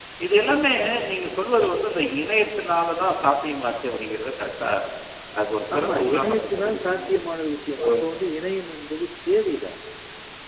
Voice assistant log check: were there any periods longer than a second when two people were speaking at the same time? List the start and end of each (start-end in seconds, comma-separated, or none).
5.7-7.1